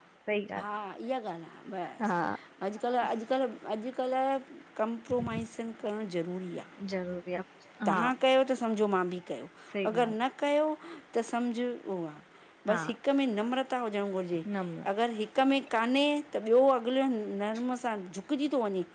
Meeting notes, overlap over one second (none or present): none